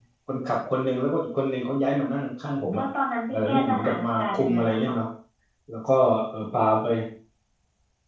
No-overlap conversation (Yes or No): No